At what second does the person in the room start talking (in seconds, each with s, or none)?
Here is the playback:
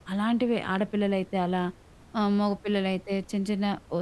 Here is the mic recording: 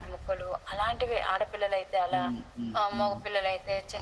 2.1 s